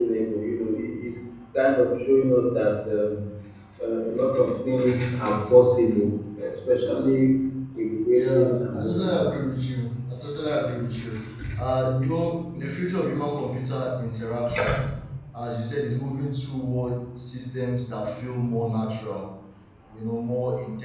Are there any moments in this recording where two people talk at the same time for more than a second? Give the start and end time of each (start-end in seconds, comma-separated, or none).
8.1-9.3